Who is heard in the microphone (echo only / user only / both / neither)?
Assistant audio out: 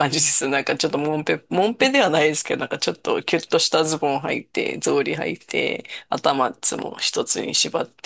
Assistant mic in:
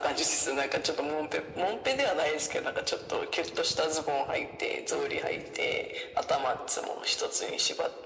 echo only